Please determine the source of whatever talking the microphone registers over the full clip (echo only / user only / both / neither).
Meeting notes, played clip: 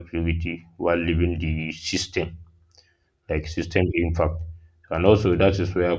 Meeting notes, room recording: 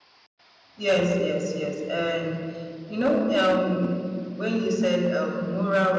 user only